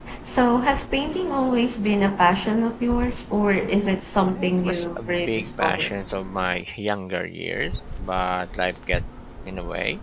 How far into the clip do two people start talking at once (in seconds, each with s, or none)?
4.2 s